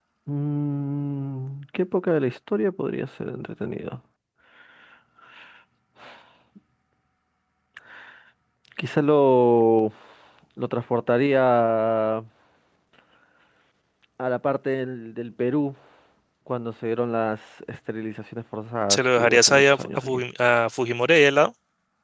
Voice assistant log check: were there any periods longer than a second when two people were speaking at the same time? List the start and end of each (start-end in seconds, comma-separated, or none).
18.9-20.2